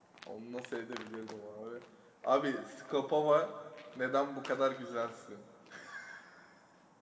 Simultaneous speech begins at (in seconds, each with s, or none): none